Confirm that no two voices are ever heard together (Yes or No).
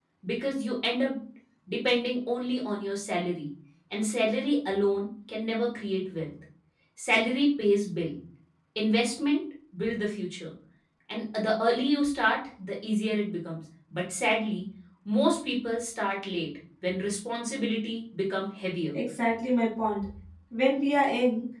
Yes